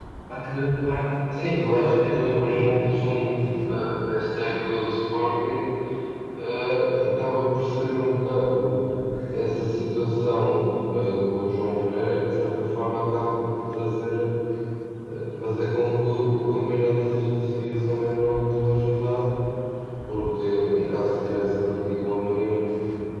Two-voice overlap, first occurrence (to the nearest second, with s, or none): 1 s